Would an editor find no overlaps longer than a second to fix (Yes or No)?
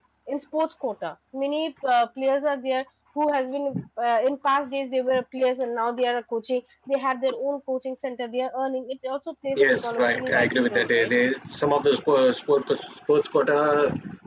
No